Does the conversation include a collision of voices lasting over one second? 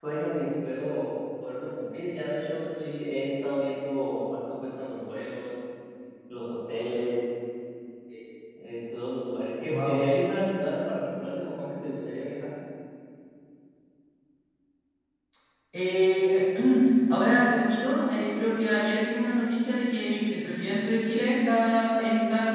No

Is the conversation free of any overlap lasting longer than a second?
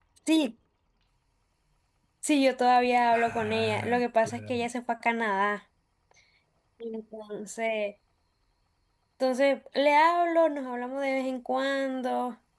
No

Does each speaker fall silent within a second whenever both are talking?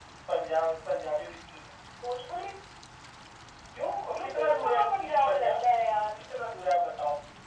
No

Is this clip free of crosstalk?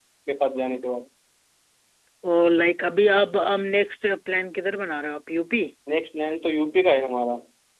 Yes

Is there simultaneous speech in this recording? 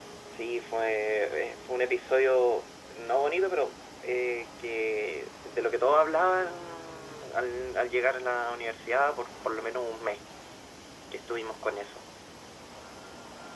No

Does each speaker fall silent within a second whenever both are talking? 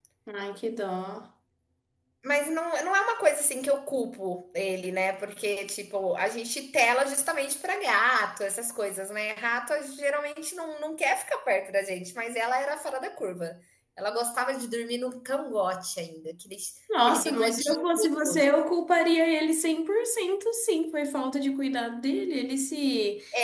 No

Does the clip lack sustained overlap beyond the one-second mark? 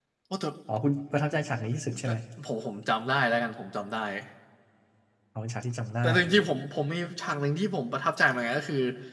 Yes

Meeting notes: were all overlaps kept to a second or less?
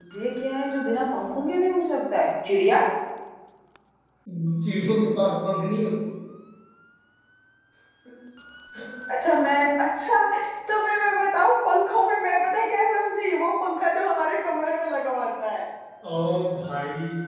Yes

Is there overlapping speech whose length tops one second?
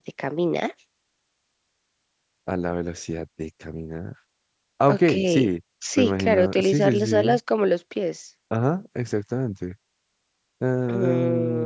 Yes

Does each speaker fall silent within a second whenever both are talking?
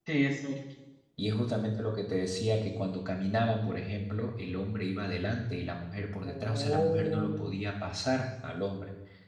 No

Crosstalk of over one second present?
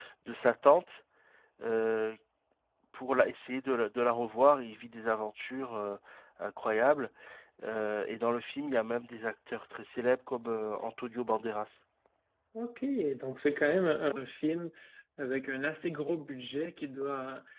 No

